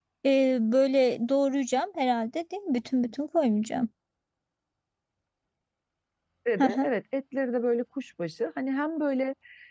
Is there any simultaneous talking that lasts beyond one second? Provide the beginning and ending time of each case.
none

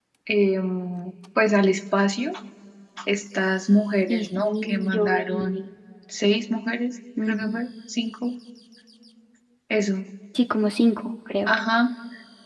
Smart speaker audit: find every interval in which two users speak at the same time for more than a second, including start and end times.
4.1-5.6

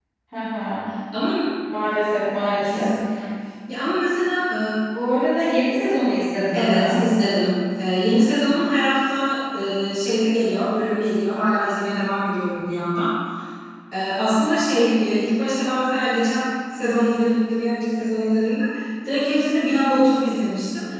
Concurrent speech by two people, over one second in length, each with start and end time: none

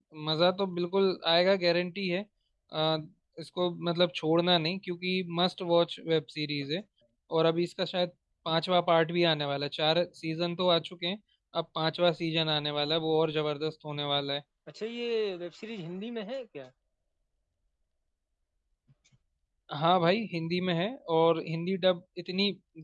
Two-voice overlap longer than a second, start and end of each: none

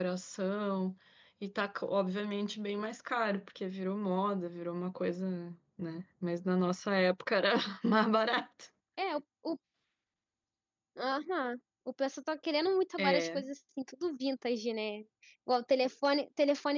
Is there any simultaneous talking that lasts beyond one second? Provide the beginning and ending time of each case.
none

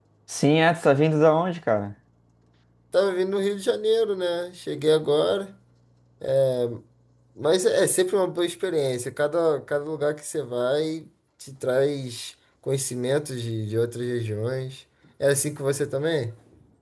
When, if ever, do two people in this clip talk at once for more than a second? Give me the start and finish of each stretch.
none

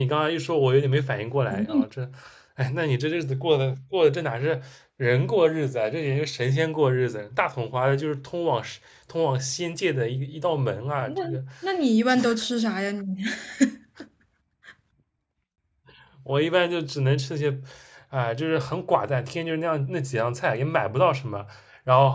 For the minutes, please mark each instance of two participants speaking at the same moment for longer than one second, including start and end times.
none

